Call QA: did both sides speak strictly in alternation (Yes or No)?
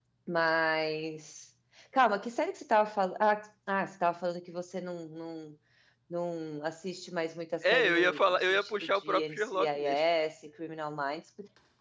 No